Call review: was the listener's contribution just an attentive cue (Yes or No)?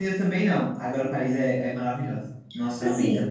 No